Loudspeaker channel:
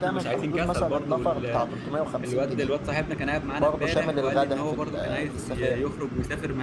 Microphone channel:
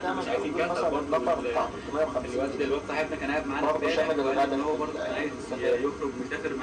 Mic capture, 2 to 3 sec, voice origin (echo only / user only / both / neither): echo only